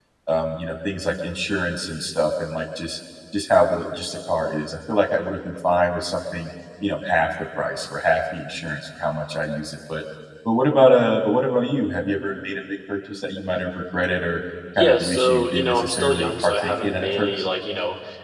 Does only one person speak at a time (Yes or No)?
No